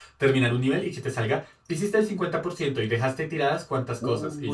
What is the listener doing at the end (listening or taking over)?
taking over